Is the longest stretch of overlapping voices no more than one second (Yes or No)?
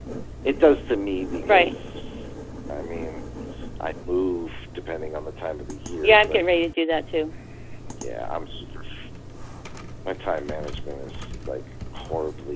Yes